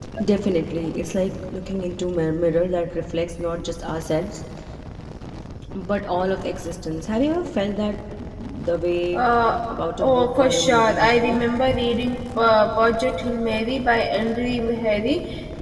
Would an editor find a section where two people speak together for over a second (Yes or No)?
Yes